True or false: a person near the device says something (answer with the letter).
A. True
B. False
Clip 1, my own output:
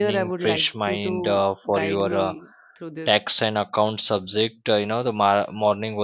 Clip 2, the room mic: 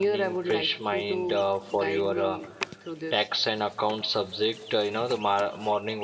B